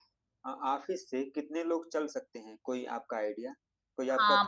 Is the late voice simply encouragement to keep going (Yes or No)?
No